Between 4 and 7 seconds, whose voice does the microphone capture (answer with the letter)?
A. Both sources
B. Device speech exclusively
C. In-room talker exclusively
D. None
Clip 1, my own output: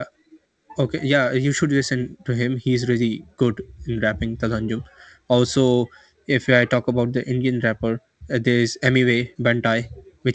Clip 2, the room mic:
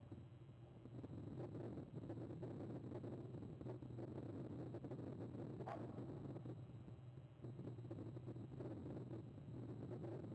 D